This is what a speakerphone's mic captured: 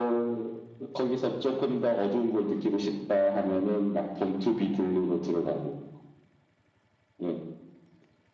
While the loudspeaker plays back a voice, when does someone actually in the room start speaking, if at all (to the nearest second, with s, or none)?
none